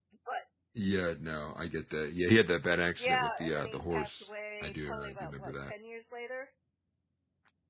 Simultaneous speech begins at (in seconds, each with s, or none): 3.0 s